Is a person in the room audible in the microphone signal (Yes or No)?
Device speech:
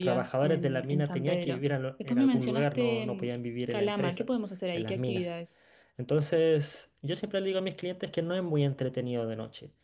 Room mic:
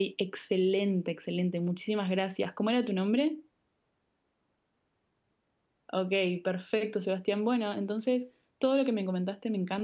Yes